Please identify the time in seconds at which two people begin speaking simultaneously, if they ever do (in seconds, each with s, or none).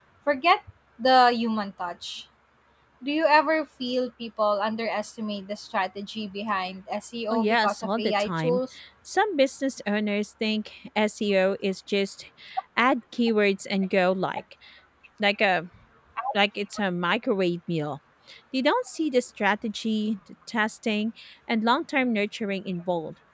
7.3 s